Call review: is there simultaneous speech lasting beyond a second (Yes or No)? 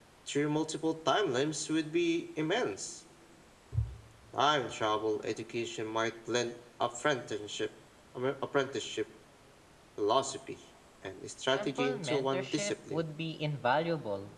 Yes